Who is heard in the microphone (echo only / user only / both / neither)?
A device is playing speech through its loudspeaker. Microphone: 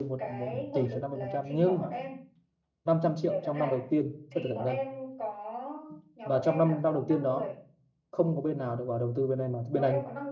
both